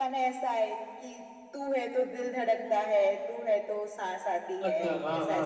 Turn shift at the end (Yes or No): Yes